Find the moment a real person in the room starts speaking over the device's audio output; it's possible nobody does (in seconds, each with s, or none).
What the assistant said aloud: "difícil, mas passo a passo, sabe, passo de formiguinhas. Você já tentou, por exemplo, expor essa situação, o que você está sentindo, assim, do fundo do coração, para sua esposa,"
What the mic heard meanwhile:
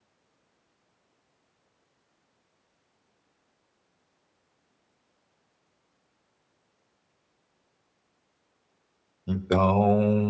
9.3 s